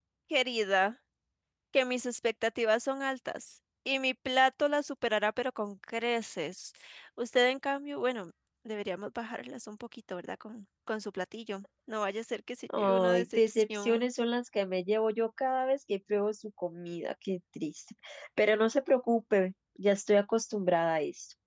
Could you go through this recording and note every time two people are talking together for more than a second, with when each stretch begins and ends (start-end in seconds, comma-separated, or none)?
12.8-14.1